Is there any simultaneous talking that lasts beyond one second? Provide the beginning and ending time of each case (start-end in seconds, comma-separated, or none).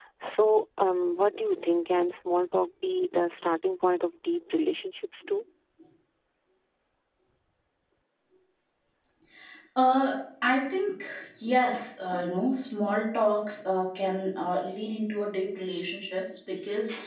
none